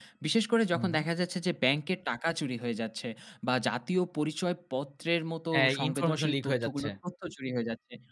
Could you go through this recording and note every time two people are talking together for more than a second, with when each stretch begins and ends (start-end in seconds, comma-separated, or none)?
5.5-6.9